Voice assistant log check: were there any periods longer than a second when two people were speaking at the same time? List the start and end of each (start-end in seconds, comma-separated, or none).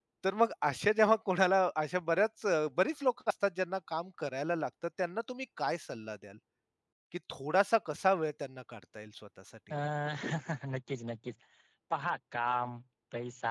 none